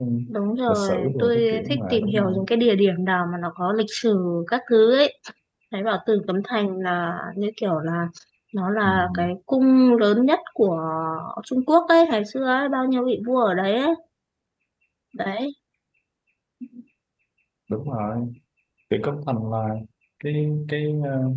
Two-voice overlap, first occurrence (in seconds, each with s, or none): 0.7 s